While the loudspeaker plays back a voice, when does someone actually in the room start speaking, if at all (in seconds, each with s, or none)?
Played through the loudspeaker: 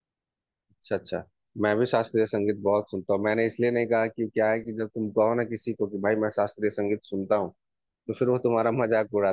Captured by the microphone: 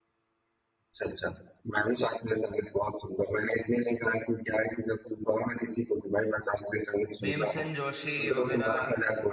7.2 s